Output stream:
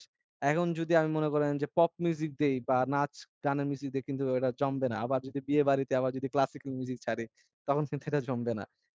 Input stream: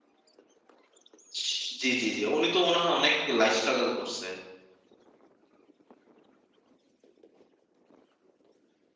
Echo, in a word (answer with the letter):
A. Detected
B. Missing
B